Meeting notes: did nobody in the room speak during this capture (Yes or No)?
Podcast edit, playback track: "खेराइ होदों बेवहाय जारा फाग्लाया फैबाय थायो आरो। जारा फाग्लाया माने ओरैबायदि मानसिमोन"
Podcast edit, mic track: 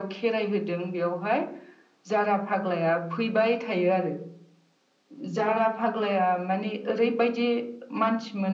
Yes